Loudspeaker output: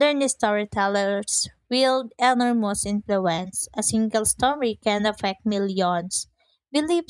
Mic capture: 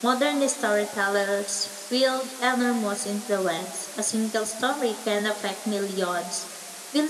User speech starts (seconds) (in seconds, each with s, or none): none